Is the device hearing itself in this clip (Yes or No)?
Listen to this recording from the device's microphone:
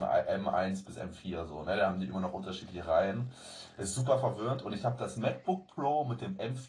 No